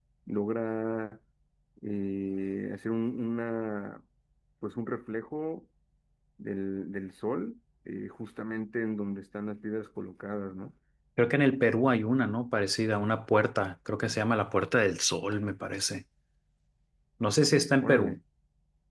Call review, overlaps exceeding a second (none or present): none